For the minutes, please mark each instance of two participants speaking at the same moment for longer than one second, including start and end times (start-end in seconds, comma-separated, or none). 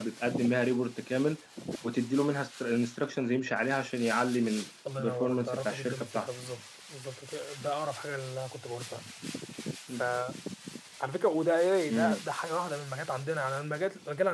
5.0-6.3